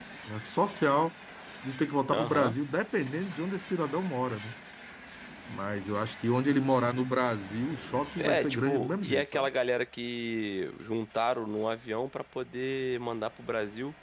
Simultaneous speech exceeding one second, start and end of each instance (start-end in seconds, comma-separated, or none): 8.2-9.5